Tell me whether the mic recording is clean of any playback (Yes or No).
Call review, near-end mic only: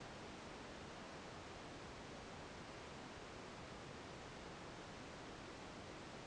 Yes